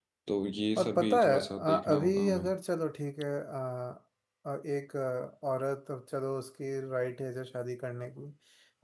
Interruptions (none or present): present